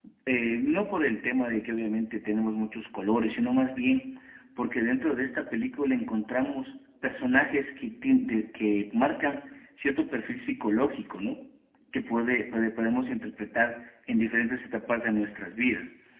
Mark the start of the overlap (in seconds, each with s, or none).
none